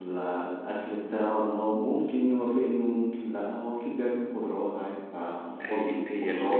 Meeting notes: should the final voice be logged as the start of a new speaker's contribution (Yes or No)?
Yes